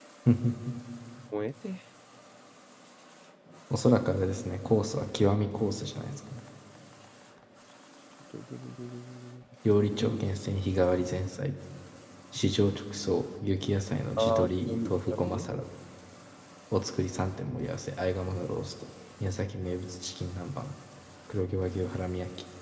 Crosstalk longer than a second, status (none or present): present